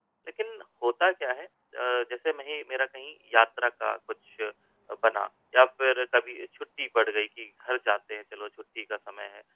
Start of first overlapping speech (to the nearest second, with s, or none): none